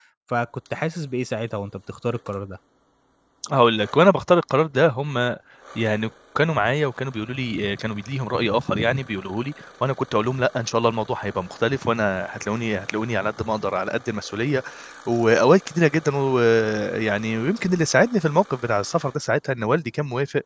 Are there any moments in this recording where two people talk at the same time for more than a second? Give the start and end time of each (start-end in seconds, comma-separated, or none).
none